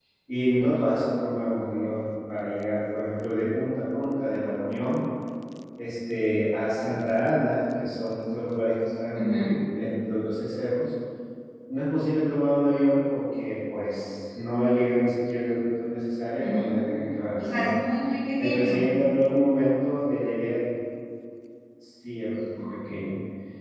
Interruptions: present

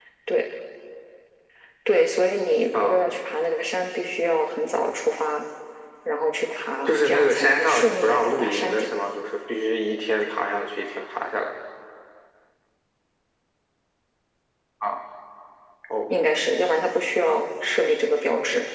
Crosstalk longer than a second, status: present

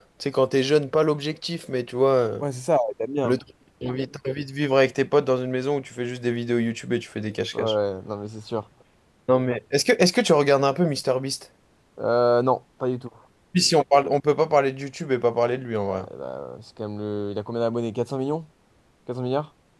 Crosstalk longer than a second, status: none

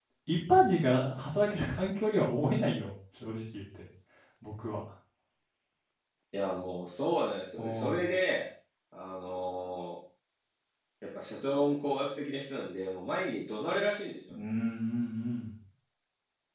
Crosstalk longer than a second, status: none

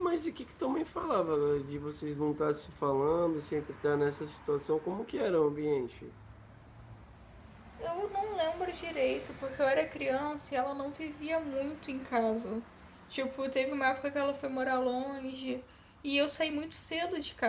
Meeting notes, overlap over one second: none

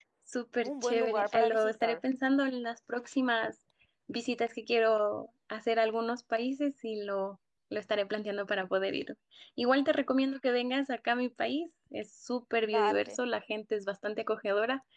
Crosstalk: present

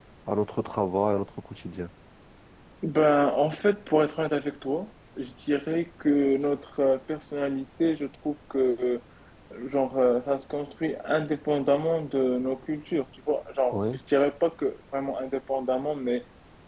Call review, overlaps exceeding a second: none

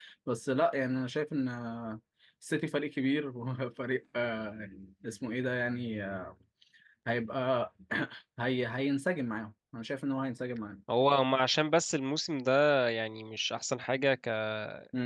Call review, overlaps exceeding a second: none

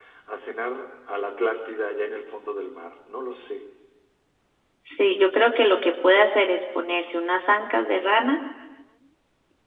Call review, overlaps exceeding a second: none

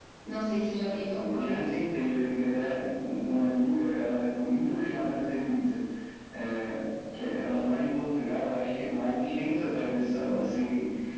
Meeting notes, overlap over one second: none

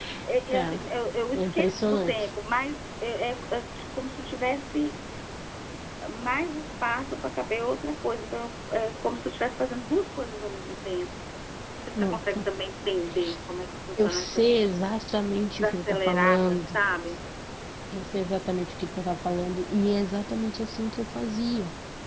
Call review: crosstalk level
present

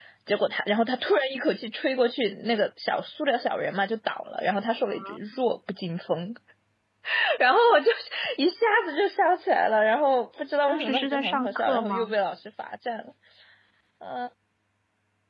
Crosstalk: present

